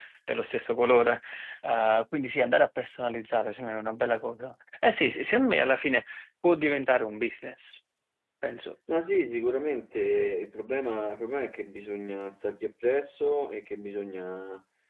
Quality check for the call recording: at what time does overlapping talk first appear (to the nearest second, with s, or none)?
none